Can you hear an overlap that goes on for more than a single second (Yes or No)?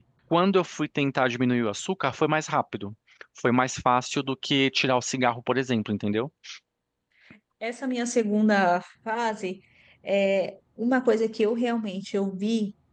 No